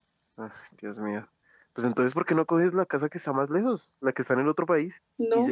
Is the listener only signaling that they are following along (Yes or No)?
No